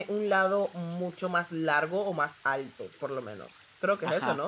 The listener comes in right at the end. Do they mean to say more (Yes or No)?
Yes